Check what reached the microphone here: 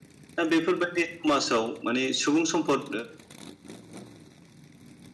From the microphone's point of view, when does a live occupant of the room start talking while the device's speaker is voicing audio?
0.4 s

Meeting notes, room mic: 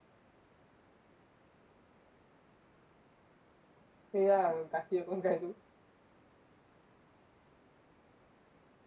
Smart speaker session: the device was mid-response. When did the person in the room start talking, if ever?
4.2 s

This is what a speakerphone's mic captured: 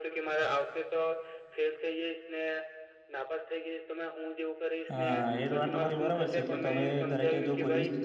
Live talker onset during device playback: 4.9 s

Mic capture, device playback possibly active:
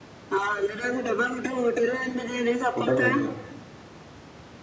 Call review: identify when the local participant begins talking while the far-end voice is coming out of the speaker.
2.7 s

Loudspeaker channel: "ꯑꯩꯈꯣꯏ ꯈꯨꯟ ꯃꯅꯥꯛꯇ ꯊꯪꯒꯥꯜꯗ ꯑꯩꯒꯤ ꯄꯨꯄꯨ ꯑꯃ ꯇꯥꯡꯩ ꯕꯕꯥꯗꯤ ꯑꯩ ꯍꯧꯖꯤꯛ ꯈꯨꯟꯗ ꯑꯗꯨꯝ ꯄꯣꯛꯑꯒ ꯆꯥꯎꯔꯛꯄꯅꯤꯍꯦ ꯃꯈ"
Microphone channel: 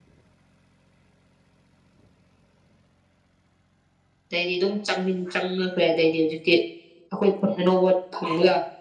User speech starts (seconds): 4.3 s

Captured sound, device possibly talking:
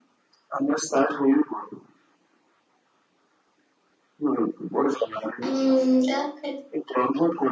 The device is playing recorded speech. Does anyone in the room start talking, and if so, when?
5.5 s

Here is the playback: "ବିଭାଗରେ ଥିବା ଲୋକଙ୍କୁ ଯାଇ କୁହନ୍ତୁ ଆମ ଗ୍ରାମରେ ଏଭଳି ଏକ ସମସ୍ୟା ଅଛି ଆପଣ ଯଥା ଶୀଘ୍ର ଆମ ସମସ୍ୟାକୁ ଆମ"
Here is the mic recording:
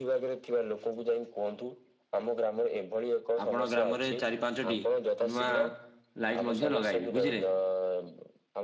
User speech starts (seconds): 3.4 s

